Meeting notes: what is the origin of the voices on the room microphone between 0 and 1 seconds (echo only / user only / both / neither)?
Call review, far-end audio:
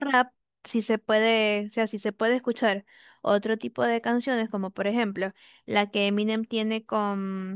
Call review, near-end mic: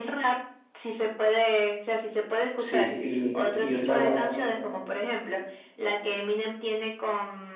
echo only